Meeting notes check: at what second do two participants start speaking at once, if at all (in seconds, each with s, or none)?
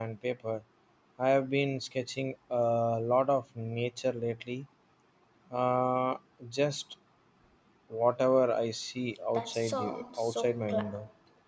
9.3 s